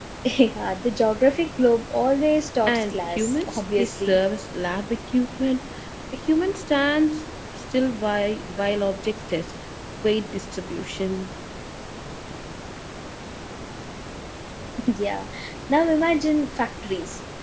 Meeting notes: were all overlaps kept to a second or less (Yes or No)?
No